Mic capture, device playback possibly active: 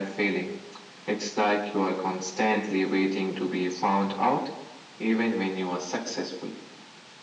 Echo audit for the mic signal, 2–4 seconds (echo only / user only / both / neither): echo only